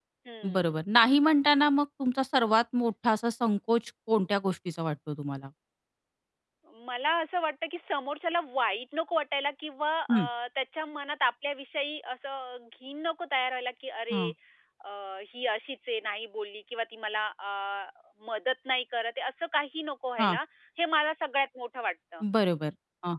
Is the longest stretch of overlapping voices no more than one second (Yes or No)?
Yes